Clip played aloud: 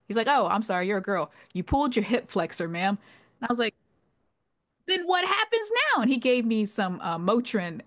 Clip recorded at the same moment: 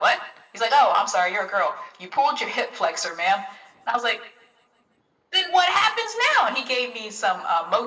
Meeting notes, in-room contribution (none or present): none